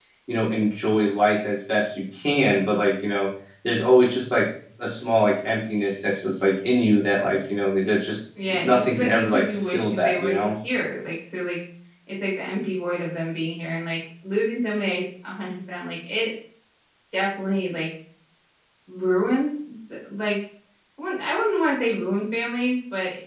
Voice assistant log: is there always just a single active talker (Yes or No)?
No